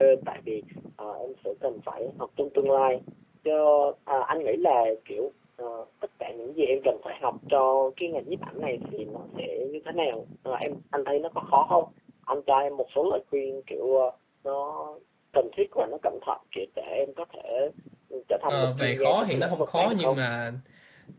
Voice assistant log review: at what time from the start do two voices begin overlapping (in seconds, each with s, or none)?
18.5 s